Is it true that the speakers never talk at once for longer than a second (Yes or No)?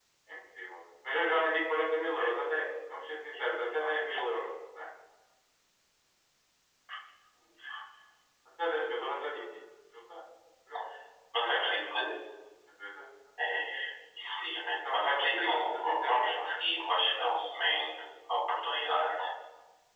No